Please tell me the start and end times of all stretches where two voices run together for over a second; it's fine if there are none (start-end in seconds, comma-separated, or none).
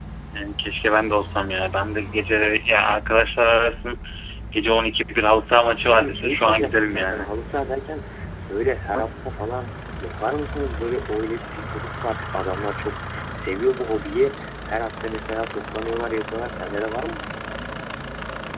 5.8-7.3